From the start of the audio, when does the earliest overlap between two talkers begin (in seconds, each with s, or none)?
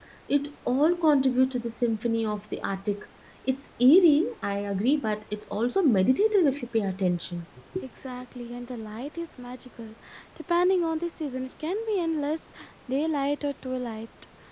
none